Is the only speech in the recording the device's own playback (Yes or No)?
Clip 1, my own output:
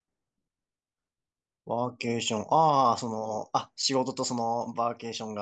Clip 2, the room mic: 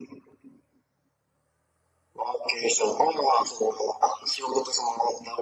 Yes